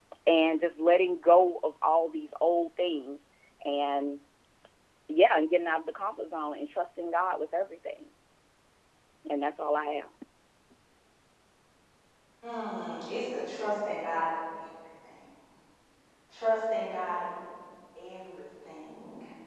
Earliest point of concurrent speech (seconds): none

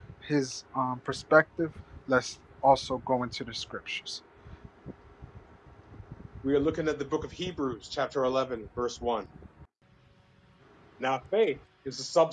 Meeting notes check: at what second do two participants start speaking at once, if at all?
none

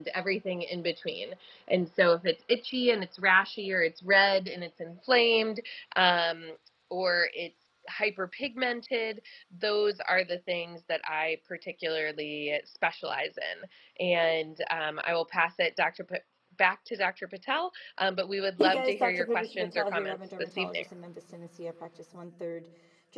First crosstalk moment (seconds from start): 19 s

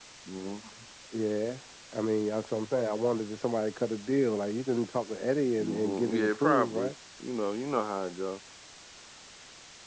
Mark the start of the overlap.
6 s

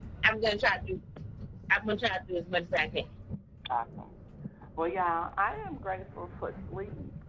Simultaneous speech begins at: none

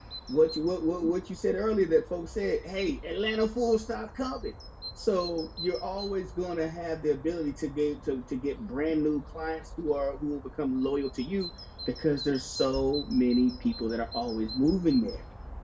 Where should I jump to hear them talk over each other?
none

